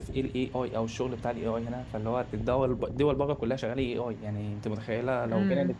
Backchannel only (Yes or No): Yes